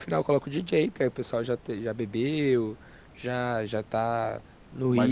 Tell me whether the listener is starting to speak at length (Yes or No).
Yes